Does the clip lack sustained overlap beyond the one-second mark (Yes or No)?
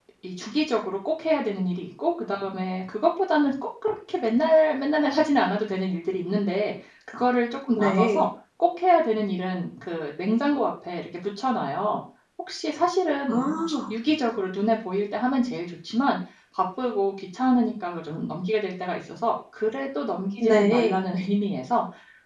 Yes